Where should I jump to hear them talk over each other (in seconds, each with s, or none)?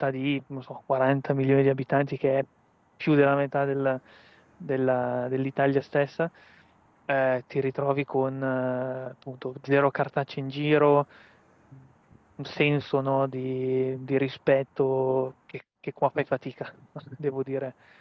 none